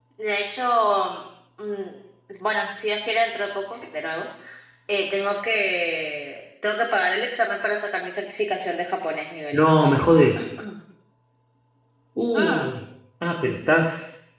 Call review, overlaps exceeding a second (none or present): none